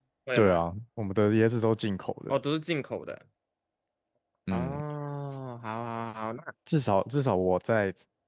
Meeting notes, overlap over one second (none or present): none